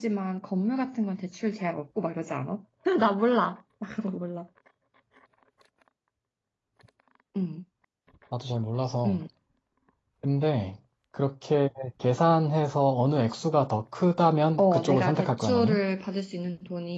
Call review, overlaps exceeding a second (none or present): present